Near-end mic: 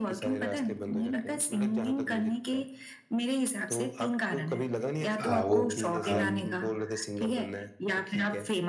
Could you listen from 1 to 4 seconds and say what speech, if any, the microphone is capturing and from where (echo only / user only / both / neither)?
echo only